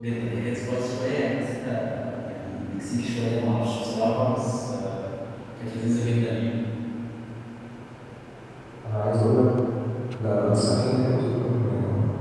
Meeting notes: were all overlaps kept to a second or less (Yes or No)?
Yes